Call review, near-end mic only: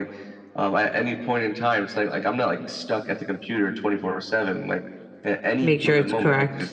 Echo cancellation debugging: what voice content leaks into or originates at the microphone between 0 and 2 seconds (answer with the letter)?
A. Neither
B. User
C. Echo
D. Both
C